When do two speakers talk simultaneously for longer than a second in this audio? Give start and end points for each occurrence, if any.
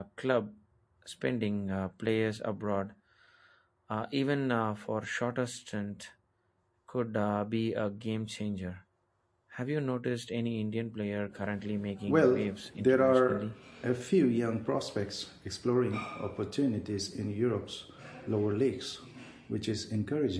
12.1-13.5

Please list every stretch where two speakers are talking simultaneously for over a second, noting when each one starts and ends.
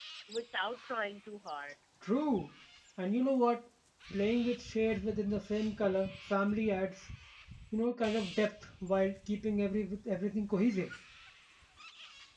none

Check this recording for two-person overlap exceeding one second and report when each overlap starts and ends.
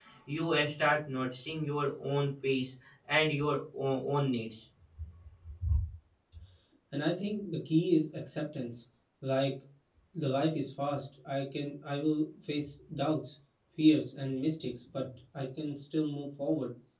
none

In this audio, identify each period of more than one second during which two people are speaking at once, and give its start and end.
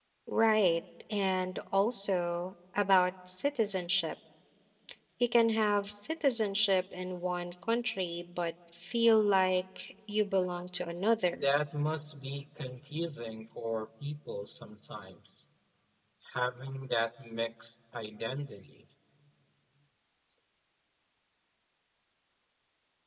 none

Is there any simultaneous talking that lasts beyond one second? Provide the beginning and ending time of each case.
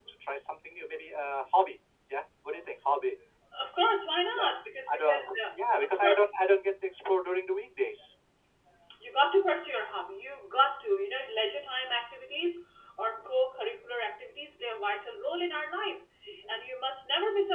4.9-6.3

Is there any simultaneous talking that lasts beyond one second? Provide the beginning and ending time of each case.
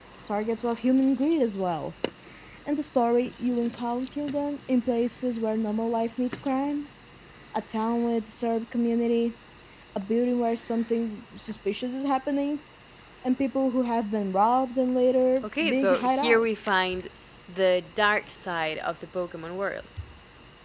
15.4-16.7

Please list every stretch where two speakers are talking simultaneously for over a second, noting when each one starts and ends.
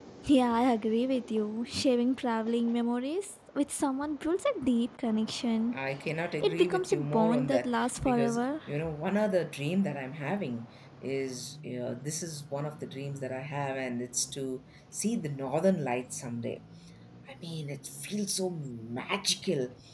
6.4-8.4

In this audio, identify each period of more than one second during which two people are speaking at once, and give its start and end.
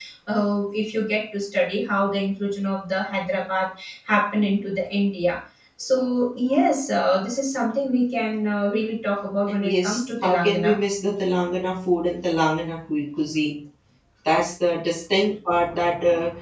9.5-10.8

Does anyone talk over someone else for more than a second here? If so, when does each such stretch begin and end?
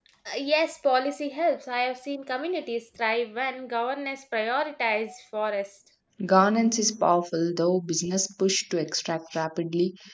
none

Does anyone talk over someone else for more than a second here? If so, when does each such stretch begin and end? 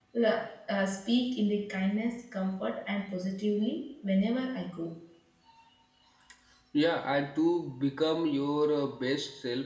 none

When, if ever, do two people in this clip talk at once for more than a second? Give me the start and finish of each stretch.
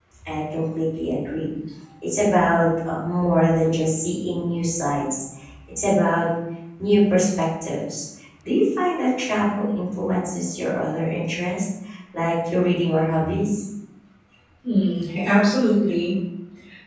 none

